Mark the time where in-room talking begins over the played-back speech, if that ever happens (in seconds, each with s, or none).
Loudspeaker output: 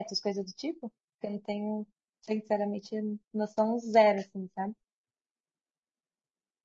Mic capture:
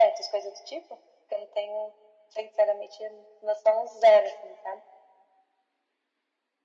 none